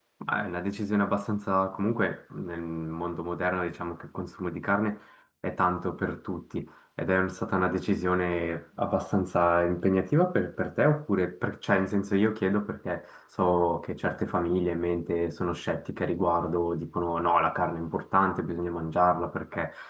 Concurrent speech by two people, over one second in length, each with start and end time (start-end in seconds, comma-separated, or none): none